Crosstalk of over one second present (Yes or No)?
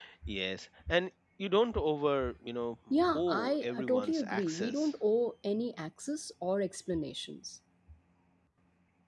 Yes